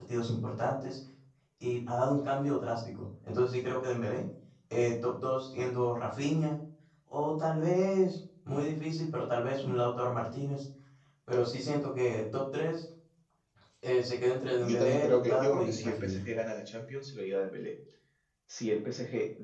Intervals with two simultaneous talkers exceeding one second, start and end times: 14.6-16.2

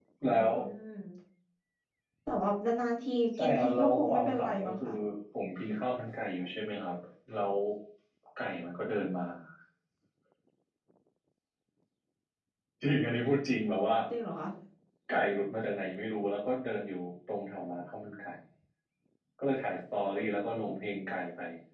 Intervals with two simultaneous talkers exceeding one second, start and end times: 3.4-4.9

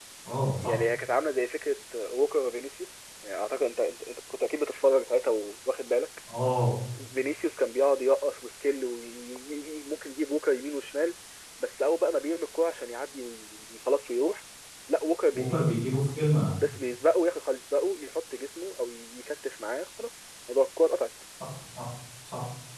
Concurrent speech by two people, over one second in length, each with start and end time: none

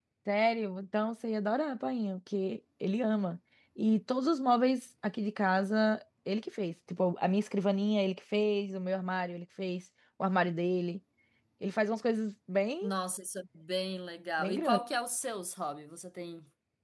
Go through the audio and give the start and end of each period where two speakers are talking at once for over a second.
none

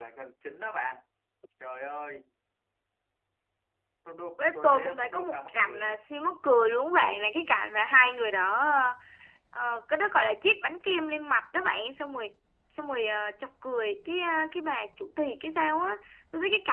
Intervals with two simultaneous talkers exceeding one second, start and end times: 4.5-6.0

